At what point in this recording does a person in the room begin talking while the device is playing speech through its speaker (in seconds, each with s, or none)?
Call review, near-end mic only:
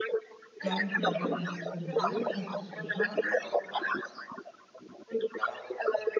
0.6 s